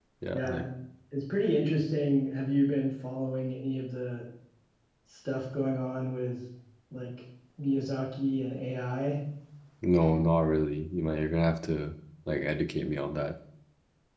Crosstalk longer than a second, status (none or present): none